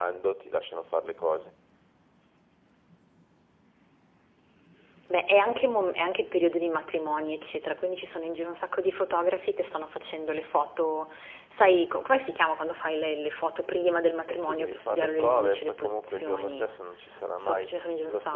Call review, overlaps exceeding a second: present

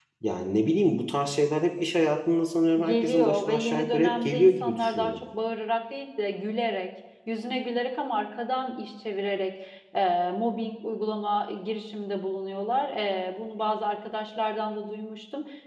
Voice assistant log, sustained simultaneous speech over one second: present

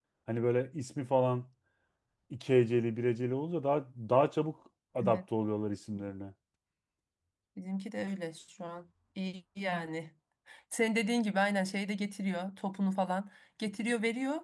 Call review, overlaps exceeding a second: none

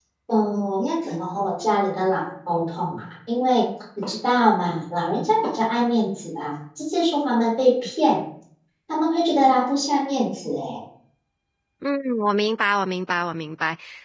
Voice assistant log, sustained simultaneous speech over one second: none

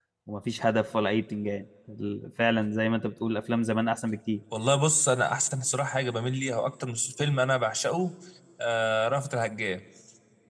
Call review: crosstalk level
none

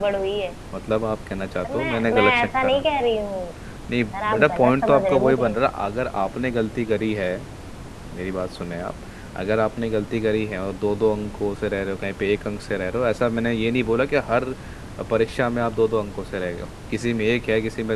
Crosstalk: present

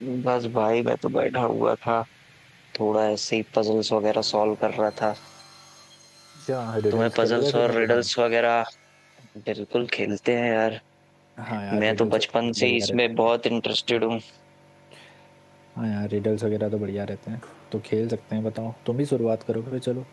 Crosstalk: present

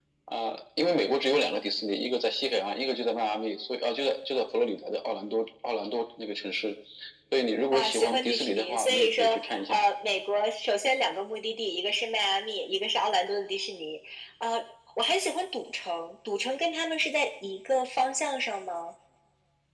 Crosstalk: present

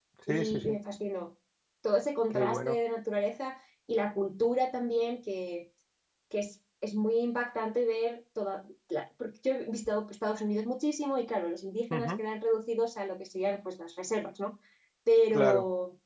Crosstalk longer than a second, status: none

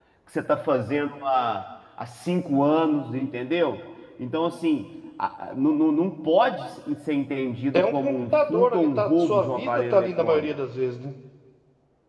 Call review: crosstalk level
present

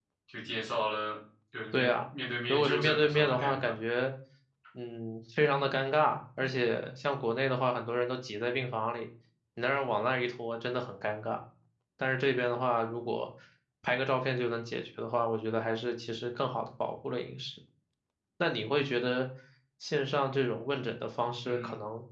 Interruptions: present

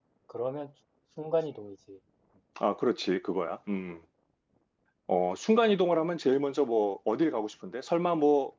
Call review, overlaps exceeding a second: none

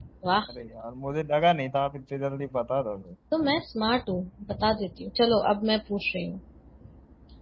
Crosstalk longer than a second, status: none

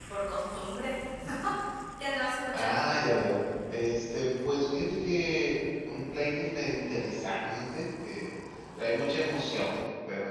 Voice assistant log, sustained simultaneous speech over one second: none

